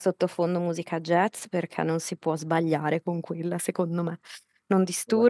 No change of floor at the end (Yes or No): Yes